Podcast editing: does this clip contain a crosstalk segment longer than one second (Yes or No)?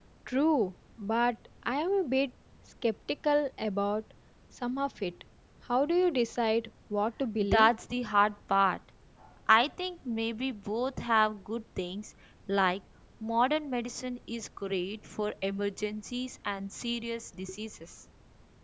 No